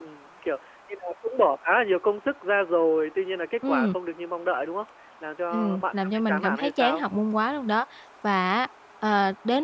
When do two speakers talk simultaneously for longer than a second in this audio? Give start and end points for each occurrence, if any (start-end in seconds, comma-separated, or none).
5.5-7.0